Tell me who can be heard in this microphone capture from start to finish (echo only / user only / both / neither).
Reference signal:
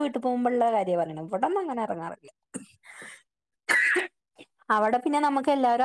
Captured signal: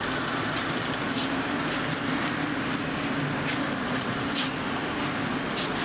neither